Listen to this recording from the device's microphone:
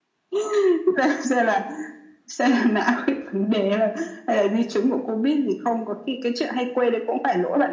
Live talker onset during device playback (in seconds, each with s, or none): none